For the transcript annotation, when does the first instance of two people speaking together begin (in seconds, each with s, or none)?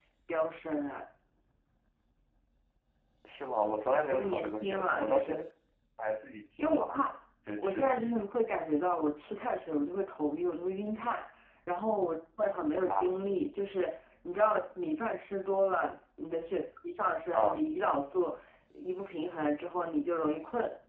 4.1 s